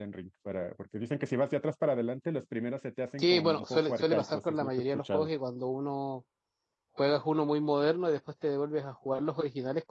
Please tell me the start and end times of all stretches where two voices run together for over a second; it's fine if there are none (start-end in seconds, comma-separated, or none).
3.2-5.3